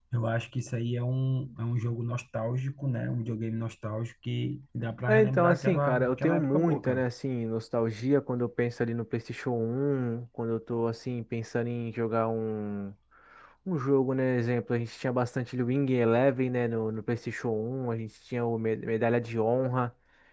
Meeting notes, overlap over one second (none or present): present